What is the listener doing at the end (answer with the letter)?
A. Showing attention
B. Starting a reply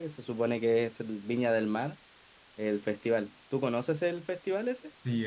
B